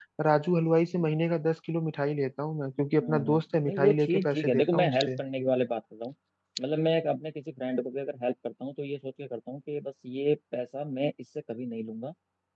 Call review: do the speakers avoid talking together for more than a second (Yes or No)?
No